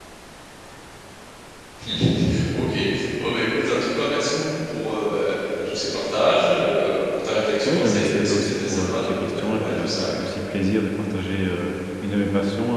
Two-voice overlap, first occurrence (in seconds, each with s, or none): 7.7 s